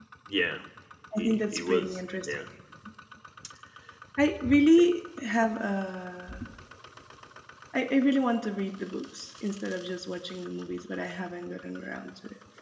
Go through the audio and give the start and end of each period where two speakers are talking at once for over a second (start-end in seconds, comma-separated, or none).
1.2-2.4